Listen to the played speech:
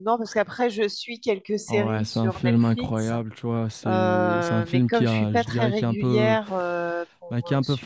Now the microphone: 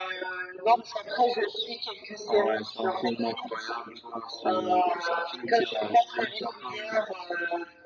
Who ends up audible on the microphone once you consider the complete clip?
echo only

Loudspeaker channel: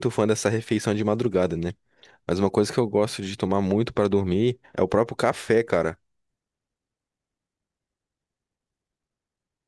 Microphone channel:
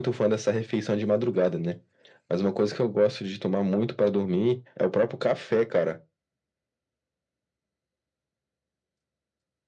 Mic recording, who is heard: echo only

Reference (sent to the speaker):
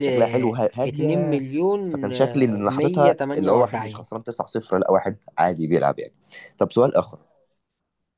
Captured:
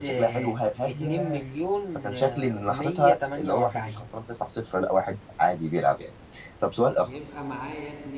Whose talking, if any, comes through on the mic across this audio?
both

